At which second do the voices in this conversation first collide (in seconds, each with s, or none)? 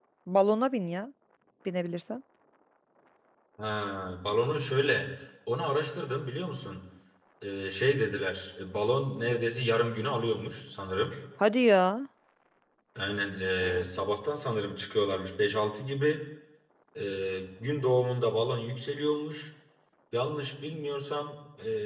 none